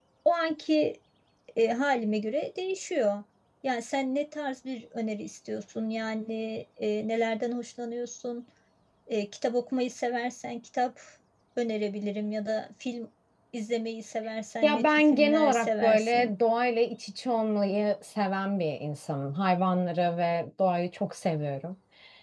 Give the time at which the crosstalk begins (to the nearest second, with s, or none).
15 s